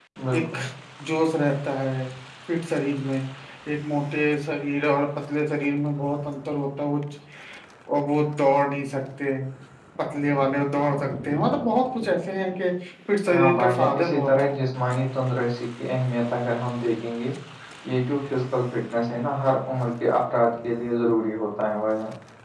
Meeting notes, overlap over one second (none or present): present